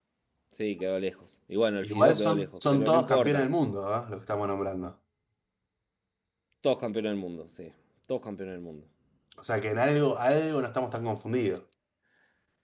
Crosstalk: present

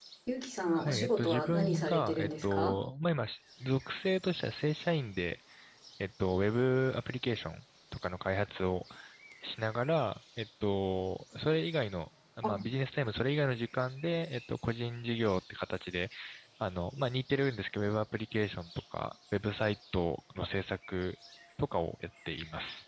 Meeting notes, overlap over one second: present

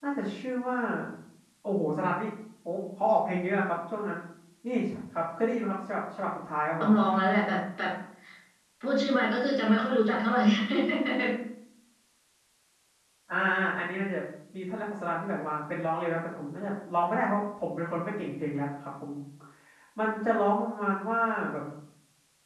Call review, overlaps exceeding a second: none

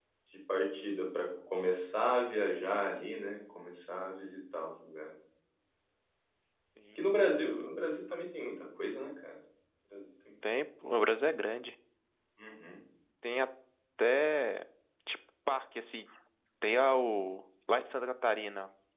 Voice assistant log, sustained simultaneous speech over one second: none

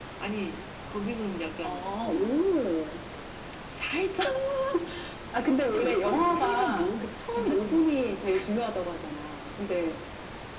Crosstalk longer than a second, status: present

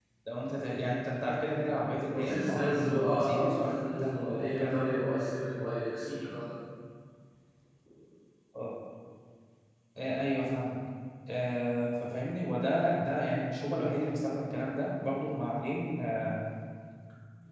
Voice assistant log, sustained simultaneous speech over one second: present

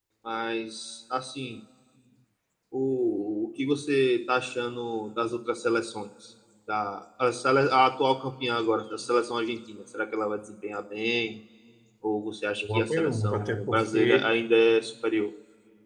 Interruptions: present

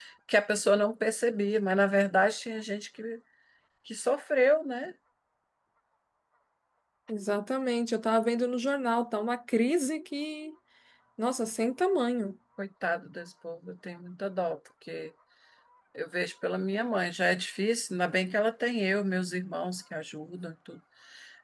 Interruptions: none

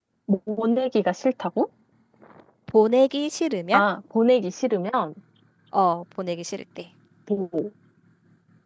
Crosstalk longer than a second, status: none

